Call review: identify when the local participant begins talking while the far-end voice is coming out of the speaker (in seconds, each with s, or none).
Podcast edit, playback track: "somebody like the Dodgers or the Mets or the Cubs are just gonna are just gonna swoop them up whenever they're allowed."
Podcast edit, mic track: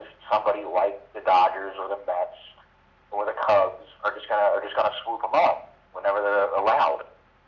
none